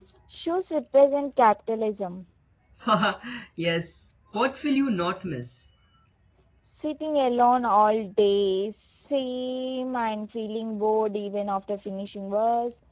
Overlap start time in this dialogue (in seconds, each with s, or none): none